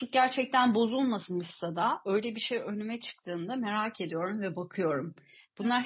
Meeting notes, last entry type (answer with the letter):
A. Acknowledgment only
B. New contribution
A